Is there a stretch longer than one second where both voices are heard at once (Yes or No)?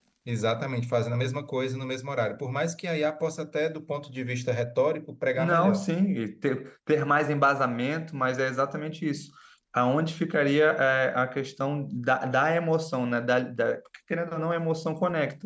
No